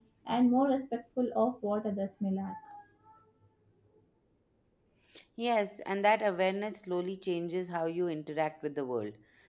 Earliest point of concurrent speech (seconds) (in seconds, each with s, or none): none